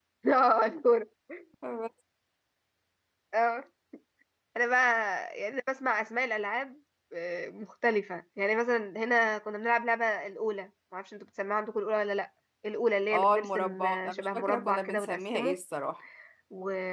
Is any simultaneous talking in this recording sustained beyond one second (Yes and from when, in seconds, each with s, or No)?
Yes, from 13.1 s